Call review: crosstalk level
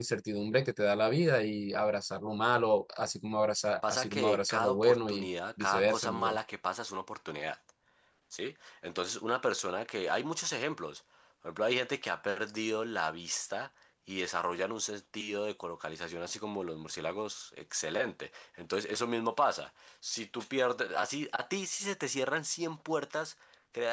present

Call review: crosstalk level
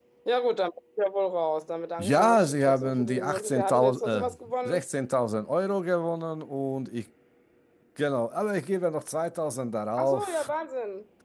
present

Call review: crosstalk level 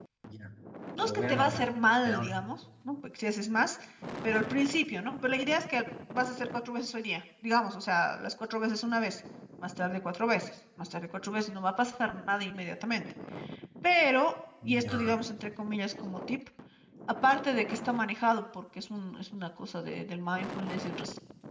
present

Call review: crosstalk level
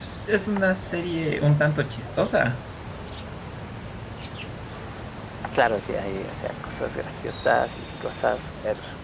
none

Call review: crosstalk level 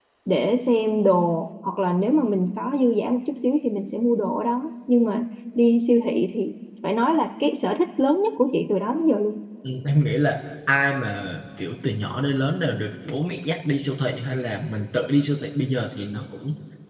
none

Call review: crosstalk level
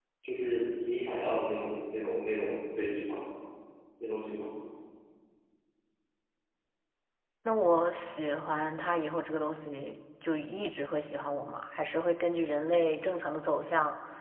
none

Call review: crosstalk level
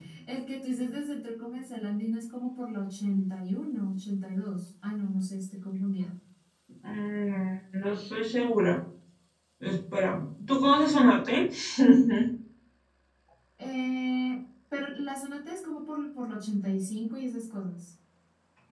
none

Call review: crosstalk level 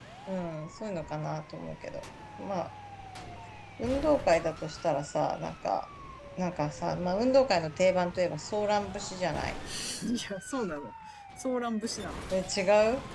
none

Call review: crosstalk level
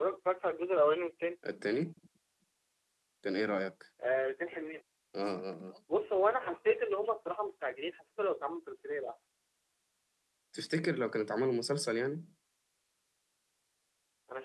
none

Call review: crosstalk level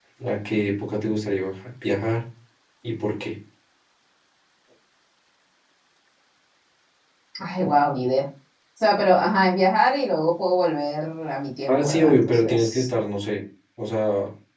present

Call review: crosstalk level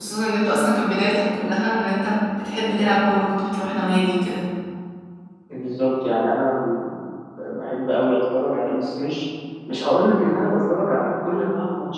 none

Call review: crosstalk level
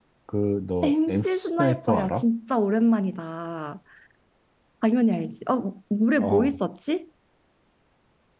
present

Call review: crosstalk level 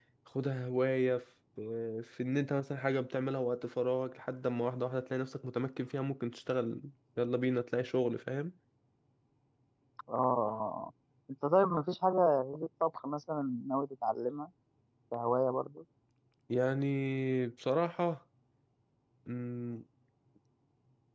none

